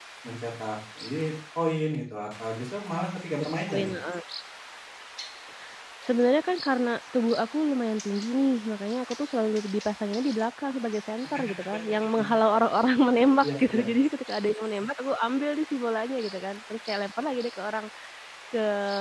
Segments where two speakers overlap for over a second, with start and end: none

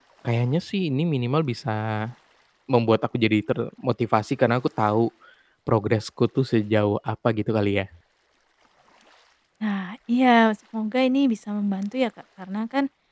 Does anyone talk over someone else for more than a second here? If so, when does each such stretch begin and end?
none

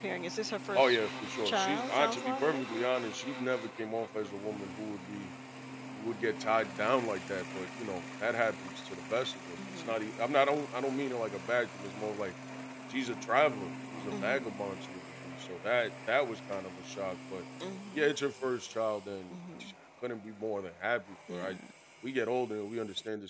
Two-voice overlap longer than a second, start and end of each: 1.4-2.8

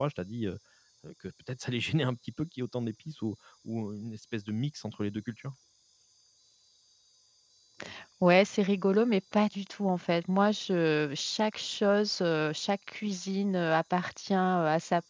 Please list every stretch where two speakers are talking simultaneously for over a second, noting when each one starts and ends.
none

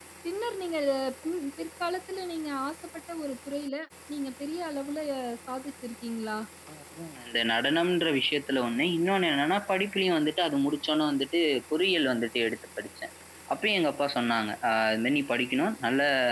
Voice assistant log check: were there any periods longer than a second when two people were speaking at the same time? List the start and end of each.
none

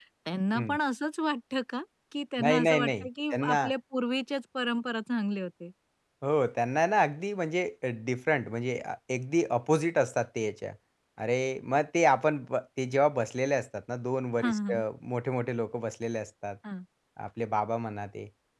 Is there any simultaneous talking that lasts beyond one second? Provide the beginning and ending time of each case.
2.4-3.7

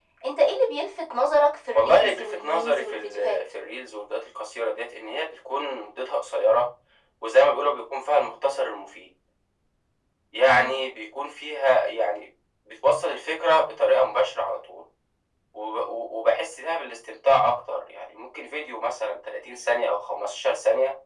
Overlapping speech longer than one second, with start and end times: 1.7-3.4

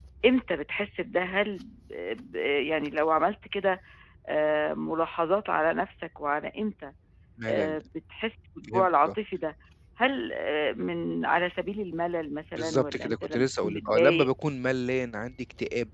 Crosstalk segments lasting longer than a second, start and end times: 12.6-14.3

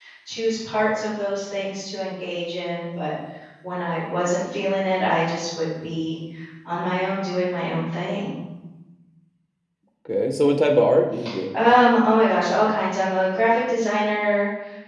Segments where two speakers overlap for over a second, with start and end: none

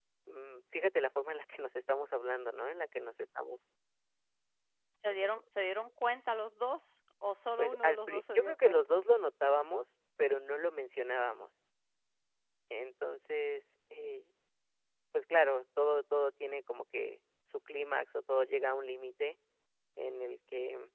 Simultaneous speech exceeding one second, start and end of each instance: 7.6-8.8

